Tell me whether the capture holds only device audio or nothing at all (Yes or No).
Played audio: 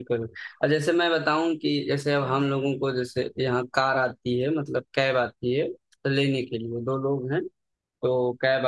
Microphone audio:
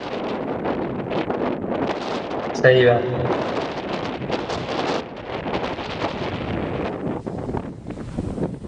No